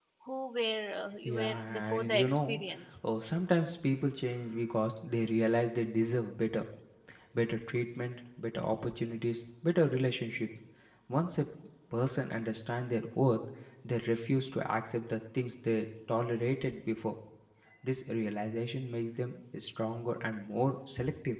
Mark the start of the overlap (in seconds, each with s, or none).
1.2 s